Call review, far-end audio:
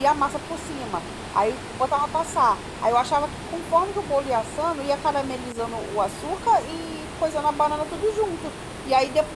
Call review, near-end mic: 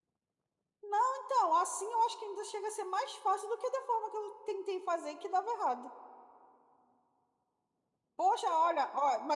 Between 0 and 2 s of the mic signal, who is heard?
user only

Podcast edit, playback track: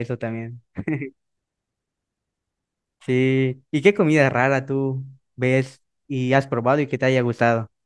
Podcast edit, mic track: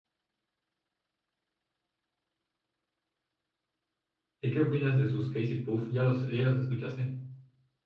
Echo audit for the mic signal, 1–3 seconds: neither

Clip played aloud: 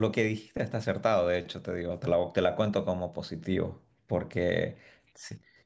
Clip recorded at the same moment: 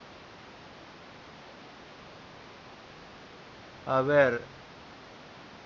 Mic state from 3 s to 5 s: user only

